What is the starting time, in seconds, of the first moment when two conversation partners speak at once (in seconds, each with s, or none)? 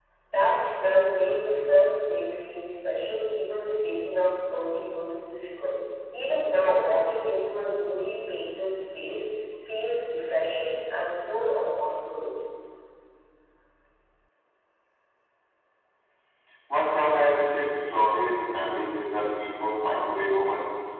none